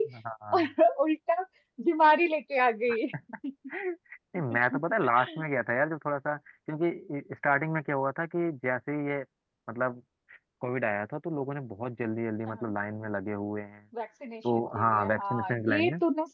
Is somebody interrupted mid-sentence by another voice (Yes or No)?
Yes